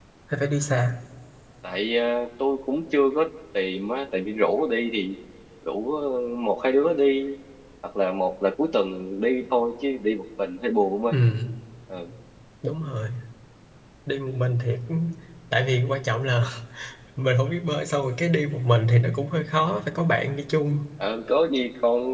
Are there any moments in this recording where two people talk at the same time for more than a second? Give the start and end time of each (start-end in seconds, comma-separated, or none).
none